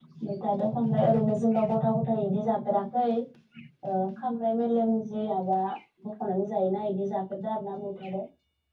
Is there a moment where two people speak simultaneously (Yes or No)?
No